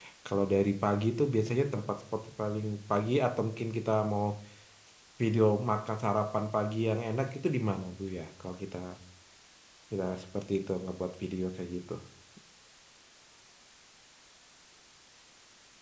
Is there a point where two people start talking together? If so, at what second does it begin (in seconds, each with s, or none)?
none